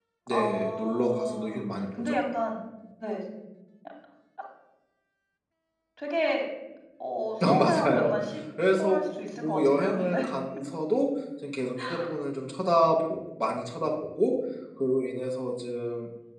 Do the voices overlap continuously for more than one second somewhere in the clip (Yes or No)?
Yes